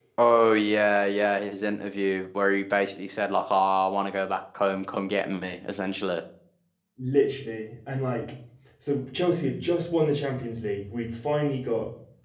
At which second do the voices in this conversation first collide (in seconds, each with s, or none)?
none